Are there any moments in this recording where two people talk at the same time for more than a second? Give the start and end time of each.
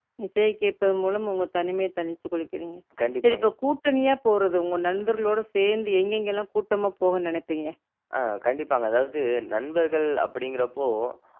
none

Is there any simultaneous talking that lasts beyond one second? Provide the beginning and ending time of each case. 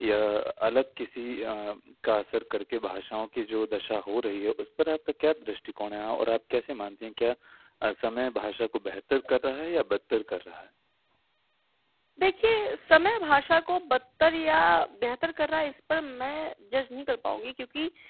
none

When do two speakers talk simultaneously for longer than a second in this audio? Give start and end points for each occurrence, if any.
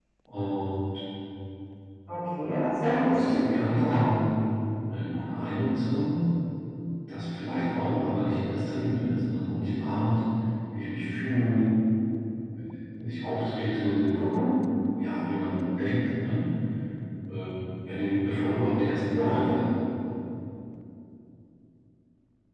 2.8-4.0

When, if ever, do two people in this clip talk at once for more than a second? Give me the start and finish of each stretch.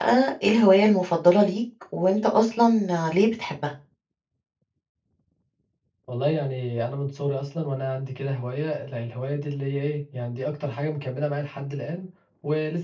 none

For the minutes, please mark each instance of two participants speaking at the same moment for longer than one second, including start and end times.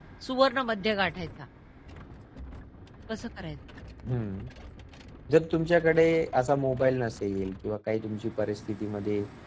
none

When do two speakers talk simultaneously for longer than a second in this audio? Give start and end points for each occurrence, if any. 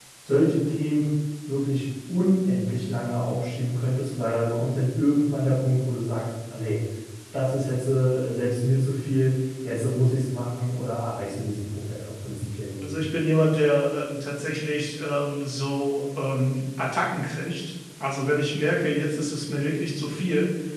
none

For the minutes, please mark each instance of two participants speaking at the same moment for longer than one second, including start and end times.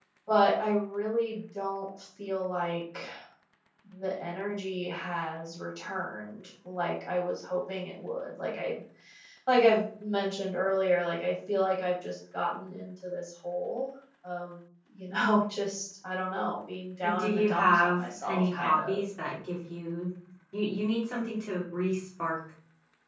17.1-19.0

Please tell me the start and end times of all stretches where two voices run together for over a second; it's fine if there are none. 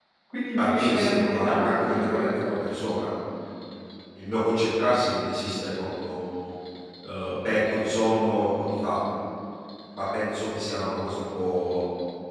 0.6-2.3

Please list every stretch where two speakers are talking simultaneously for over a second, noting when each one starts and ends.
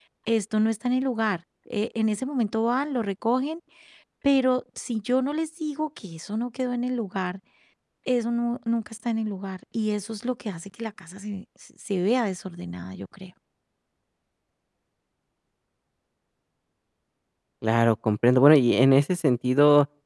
none

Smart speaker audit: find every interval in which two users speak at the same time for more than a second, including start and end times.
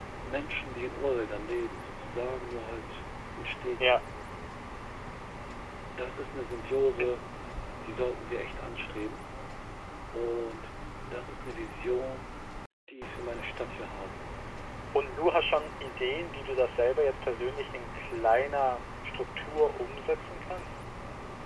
none

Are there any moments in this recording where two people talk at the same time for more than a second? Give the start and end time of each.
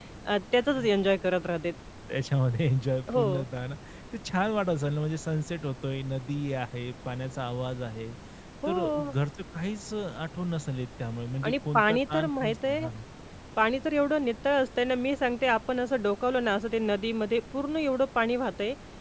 11.4-12.9

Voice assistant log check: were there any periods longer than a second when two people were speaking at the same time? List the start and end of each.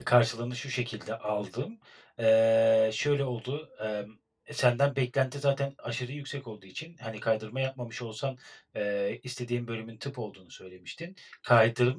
none

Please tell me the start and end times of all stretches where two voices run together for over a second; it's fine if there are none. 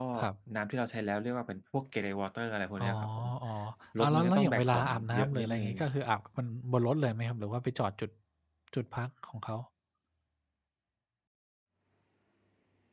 4.0-5.7

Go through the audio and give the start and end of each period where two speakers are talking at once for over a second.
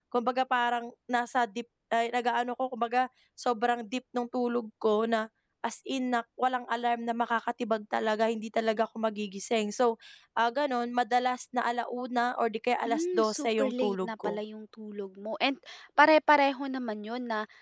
12.8-14.3

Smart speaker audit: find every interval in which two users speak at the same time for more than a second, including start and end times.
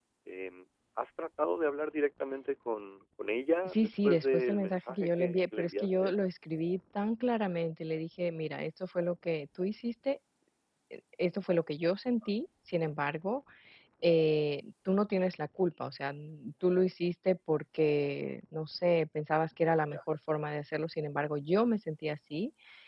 3.6-6.1

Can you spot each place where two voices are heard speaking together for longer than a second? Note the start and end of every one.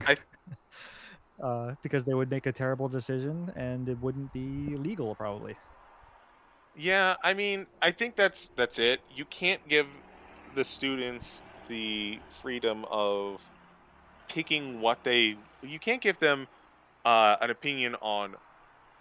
none

